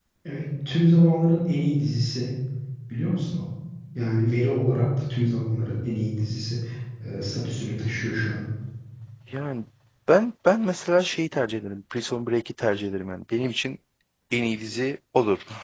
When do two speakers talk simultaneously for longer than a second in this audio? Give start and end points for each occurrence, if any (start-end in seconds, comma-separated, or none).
none